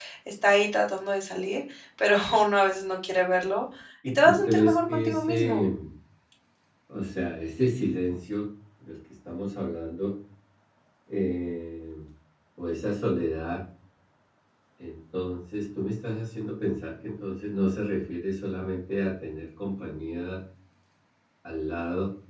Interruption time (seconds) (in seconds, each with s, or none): 4.0 s